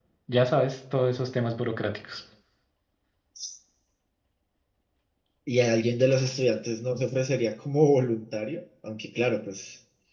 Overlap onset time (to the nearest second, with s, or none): none